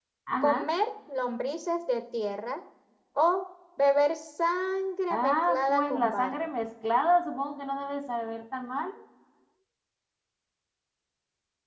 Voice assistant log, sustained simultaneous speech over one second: present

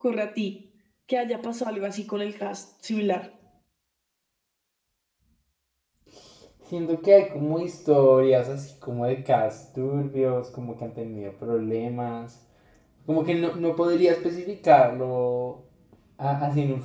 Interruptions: none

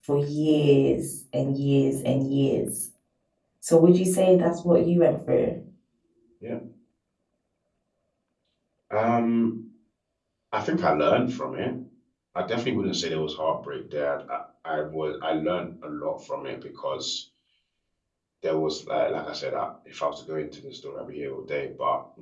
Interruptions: none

